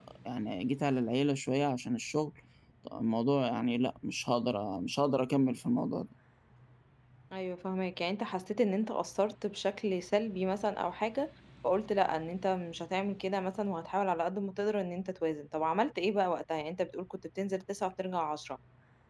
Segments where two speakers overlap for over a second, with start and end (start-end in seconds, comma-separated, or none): none